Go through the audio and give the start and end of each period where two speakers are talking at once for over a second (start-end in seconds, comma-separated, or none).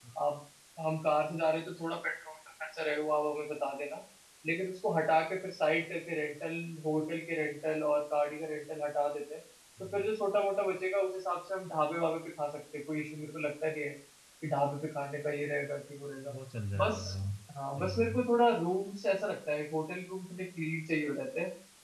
none